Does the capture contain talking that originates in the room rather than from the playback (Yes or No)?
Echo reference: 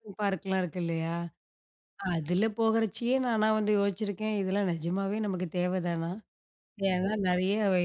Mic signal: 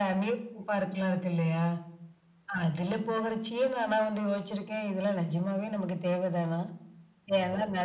No